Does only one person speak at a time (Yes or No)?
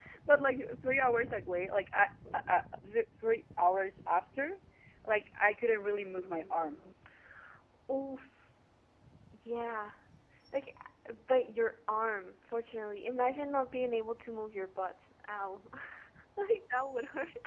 Yes